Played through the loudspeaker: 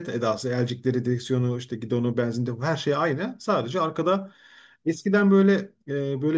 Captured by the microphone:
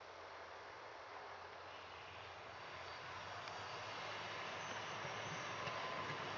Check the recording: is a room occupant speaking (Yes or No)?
No